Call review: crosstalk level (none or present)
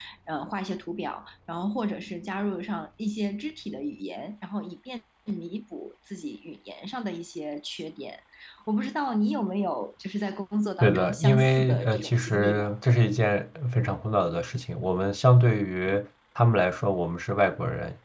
present